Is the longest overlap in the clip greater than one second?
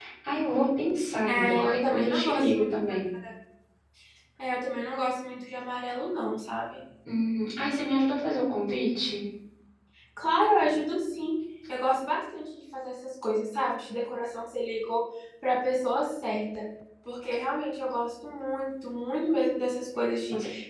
Yes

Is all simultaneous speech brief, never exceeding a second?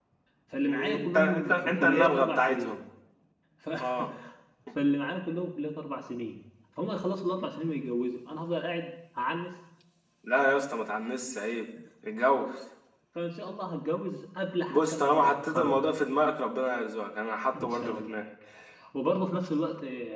No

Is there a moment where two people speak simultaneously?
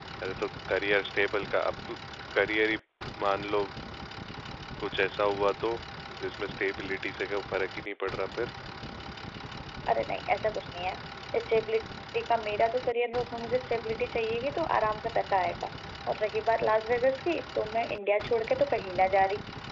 No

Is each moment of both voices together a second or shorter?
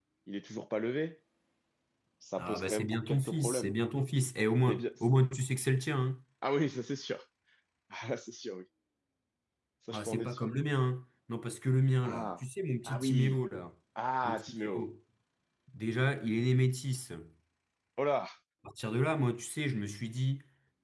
No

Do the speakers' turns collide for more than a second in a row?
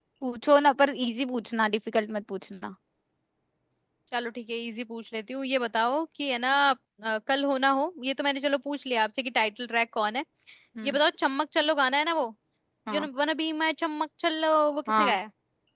No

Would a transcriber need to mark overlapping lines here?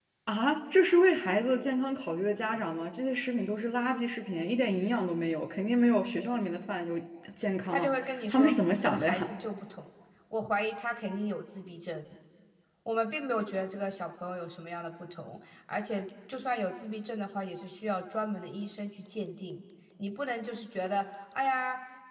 Yes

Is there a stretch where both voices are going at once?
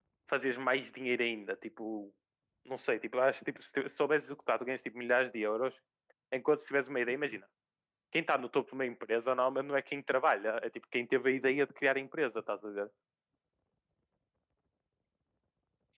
No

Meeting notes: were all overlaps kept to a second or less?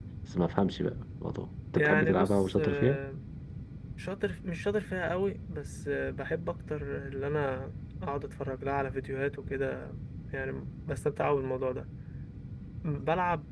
No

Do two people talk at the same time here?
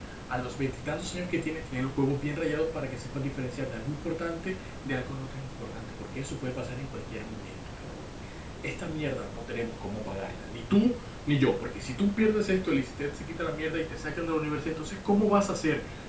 No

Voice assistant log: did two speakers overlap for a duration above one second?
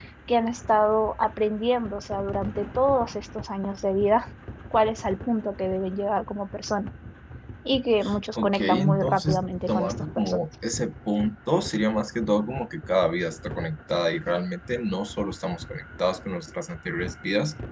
Yes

